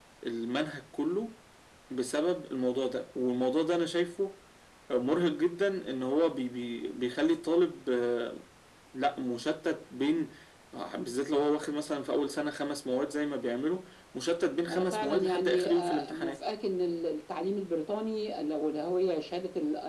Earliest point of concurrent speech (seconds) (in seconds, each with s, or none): 14.7 s